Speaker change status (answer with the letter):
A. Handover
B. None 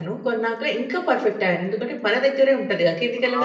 A